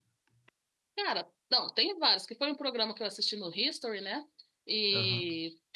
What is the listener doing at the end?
listening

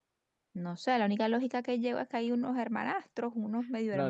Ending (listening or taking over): taking over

